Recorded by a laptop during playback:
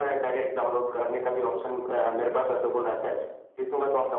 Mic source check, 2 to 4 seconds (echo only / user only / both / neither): echo only